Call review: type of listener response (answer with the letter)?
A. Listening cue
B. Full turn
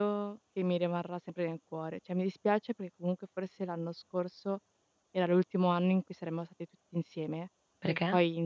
A